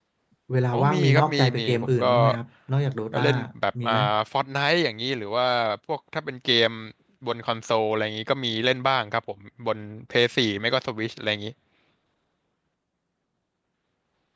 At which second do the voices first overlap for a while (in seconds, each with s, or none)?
0.7 s